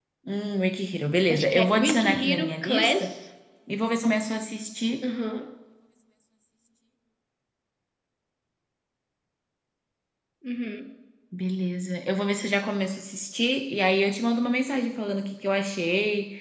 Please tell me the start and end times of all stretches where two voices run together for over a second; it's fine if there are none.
1.3-3.0

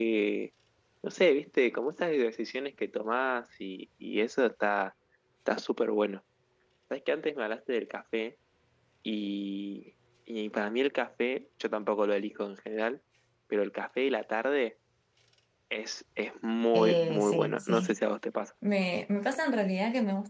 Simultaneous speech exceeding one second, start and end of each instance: 16.7-17.9

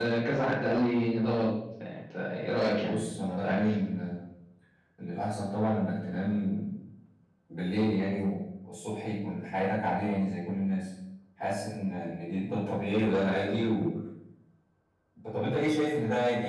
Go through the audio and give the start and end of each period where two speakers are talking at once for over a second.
none

